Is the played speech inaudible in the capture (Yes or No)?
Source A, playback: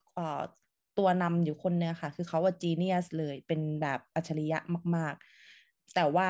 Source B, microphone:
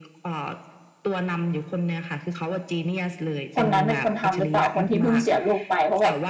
No